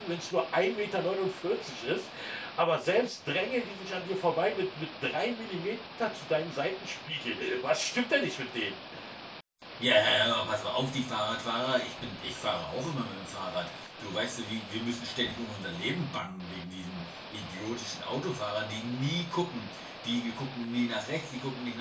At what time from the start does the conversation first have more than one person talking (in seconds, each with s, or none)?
none